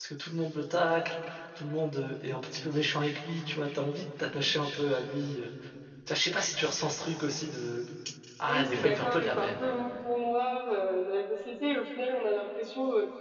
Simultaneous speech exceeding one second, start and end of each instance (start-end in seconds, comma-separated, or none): 8.5-9.7